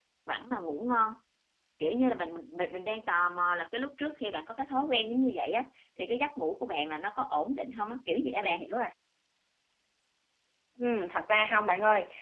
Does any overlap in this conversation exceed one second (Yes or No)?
No